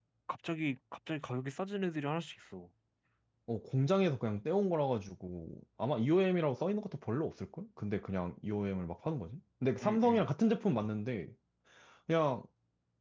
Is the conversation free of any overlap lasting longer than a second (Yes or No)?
Yes